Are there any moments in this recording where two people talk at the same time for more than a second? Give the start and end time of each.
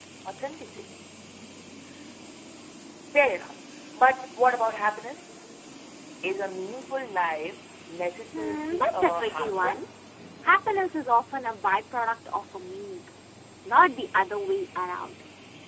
8.3-9.8

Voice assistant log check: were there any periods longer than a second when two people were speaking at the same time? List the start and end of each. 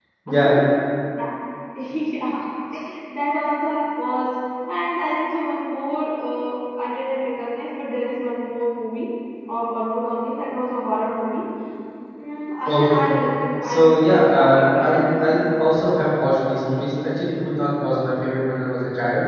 13.6-15.9

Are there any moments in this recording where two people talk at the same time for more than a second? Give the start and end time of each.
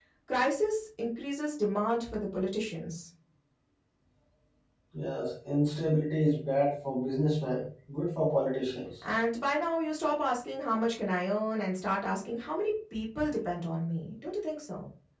none

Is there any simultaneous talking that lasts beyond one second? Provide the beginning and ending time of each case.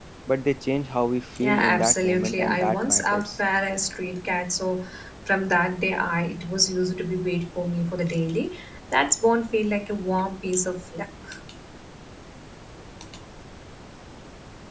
1.4-3.3

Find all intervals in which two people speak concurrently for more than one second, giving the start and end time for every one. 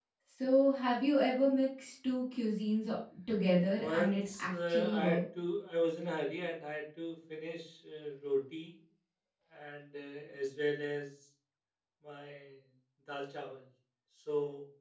3.8-5.2

